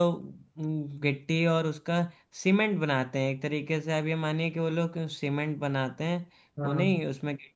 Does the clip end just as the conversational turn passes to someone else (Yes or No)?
No